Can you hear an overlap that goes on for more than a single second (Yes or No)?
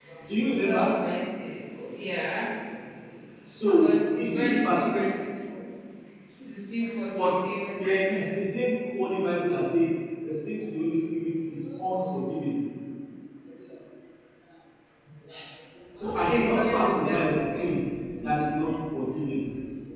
Yes